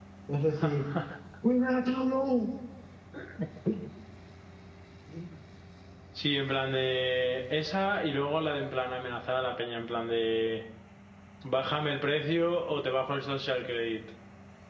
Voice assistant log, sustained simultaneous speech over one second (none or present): none